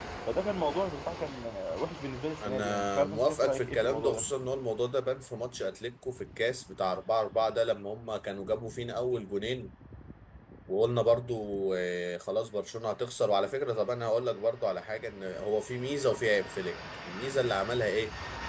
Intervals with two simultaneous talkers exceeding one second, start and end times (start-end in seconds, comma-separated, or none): 2.4-4.2